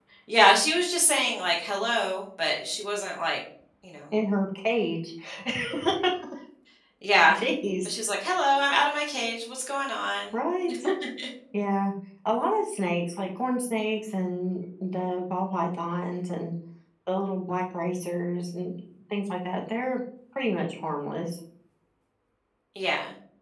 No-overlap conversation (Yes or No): Yes